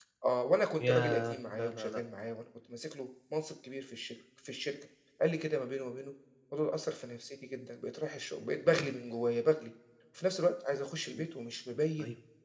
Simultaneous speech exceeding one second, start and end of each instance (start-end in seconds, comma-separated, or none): 0.8-2.0